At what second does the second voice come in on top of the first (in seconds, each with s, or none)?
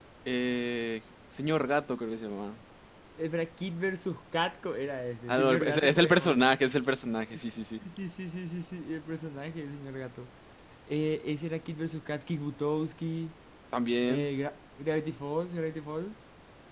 5.3 s